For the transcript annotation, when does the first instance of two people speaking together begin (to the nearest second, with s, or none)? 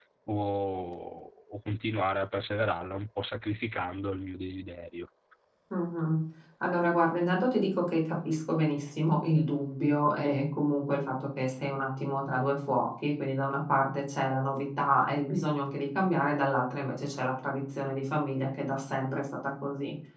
none